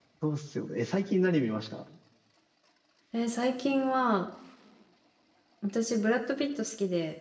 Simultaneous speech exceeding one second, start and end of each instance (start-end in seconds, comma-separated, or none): none